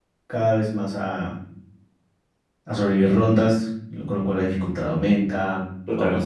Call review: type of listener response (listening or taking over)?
listening